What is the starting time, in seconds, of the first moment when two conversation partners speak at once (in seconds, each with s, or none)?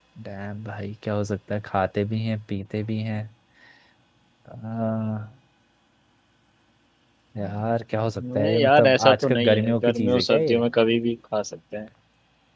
8.2 s